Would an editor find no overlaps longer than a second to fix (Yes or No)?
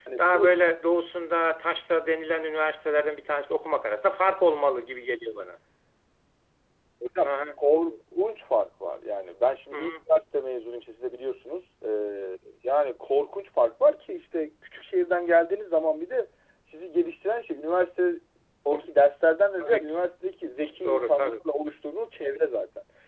Yes